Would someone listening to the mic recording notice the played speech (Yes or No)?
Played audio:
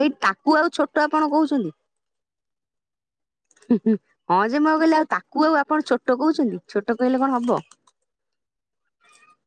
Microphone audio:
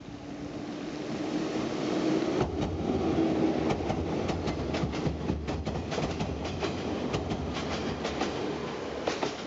No